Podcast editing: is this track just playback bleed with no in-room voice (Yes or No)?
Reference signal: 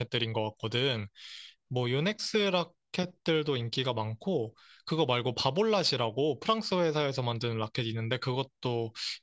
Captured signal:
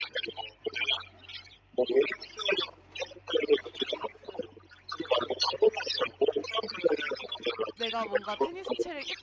No